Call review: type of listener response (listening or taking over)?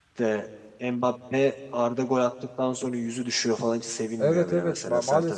taking over